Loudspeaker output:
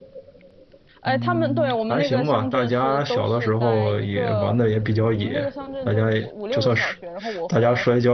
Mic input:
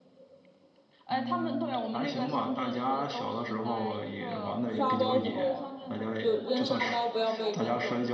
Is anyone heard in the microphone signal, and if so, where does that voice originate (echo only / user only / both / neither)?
both